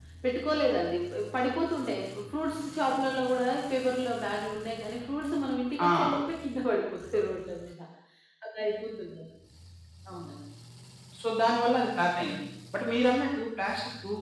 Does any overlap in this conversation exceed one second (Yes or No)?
No